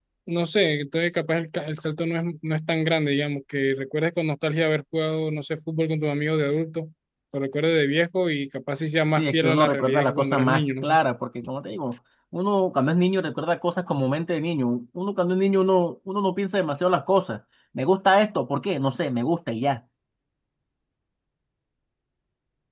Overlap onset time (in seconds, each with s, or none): 9.2 s